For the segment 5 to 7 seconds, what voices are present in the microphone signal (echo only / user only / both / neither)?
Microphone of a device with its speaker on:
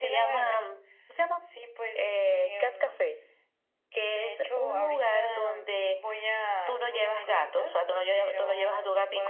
echo only